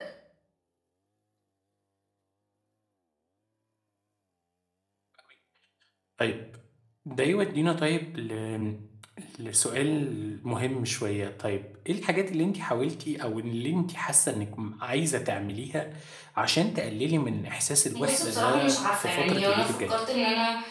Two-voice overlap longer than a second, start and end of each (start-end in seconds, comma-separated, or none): 17.9-19.9